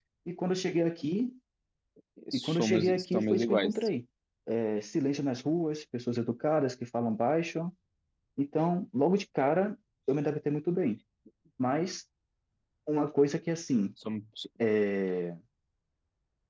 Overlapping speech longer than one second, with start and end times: 2.3-3.7

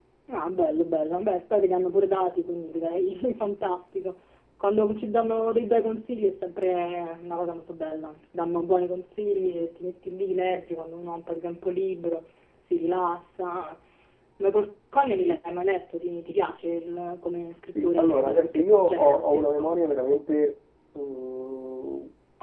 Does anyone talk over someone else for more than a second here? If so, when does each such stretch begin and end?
17.6-19.8

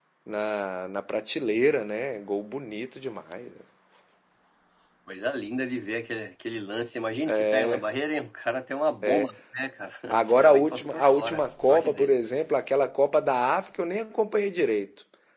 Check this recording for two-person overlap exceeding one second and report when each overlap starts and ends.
10.4-12.2

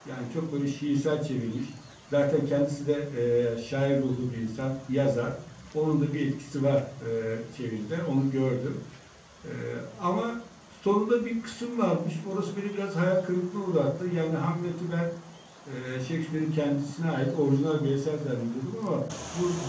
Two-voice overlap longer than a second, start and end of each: none

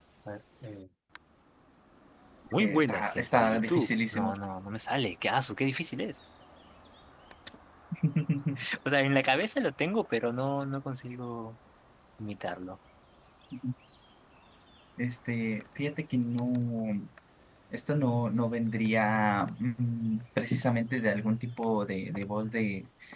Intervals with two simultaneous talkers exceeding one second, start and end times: 2.6-4.3

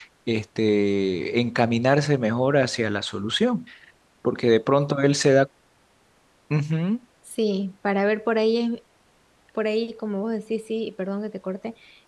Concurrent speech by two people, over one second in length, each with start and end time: none

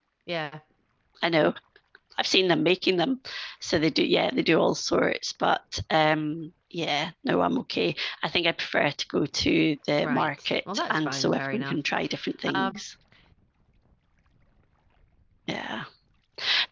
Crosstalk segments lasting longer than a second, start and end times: 10.0-11.8

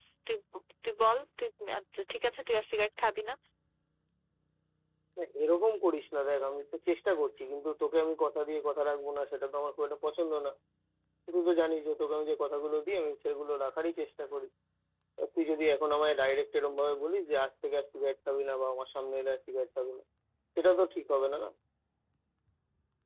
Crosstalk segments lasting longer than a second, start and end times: none

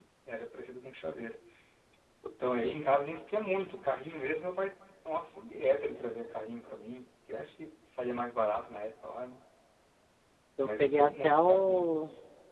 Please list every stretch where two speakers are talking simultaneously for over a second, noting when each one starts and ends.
10.6-11.9

